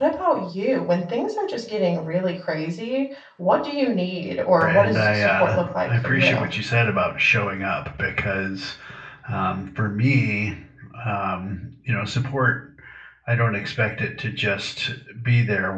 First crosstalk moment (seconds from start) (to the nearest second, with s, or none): 5 s